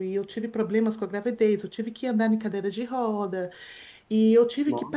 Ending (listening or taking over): listening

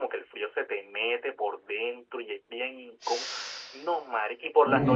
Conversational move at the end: listening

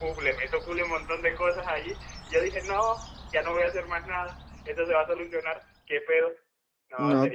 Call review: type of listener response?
taking over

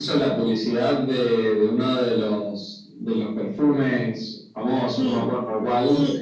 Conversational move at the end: taking over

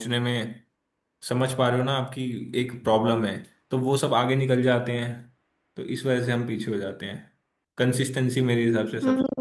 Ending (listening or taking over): taking over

